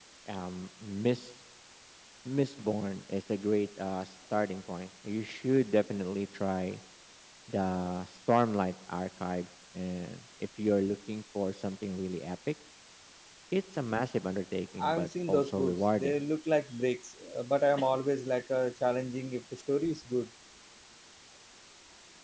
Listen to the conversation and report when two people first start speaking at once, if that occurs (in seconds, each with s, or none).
14.8 s